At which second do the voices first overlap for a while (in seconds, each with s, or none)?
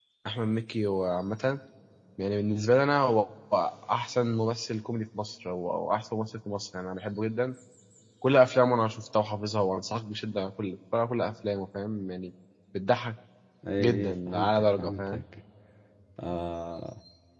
13.8 s